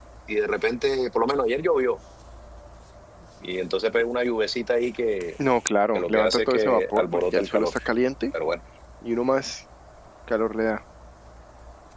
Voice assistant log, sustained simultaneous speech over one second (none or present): present